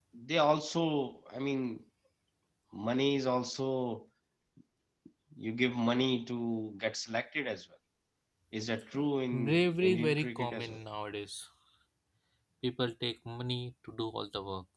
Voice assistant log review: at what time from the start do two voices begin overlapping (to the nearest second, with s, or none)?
9 s